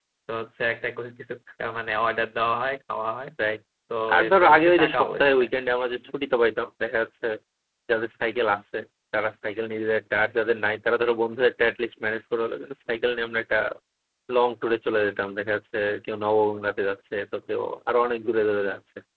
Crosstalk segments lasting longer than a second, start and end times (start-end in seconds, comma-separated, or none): 4.1-5.5